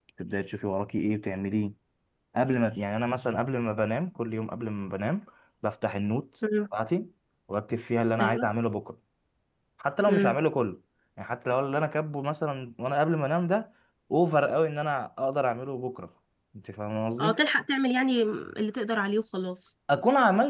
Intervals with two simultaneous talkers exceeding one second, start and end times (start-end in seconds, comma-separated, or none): none